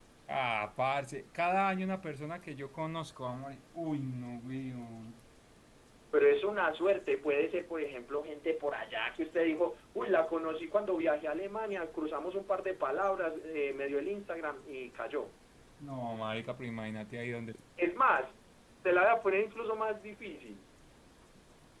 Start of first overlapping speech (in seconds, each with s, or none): none